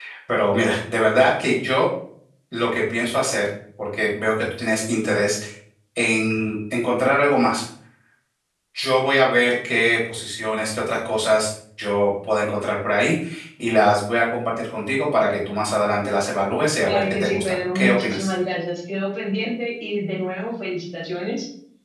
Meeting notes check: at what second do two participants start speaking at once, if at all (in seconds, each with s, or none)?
16.8 s